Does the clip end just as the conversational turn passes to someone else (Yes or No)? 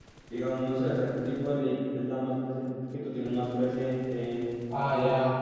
Yes